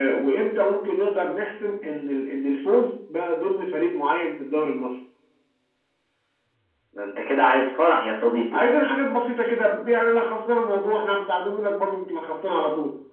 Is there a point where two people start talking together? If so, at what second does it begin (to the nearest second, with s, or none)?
none